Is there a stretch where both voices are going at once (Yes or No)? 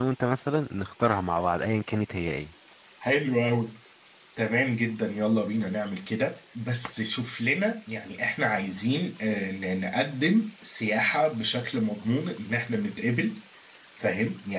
No